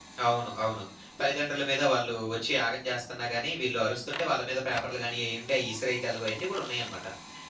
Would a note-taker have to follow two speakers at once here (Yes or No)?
No